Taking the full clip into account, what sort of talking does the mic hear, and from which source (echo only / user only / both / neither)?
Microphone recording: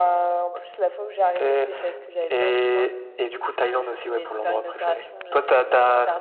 echo only